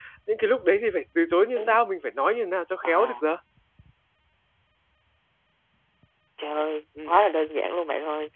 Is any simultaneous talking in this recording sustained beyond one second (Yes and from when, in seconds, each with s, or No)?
No